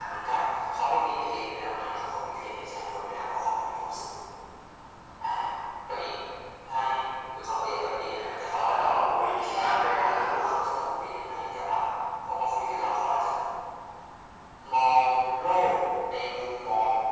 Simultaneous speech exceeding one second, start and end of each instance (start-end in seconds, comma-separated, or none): none